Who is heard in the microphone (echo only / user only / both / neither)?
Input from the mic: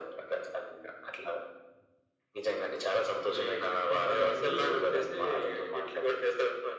both